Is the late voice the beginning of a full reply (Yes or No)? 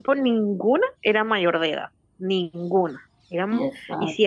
No